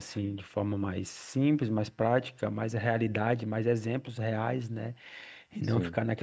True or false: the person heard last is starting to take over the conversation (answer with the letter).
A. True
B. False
B